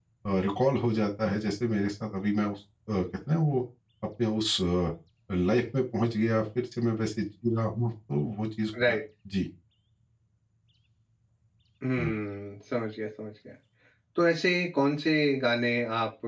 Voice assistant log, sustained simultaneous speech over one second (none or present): none